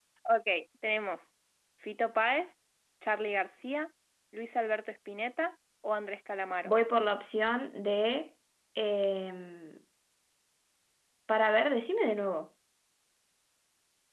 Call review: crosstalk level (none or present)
none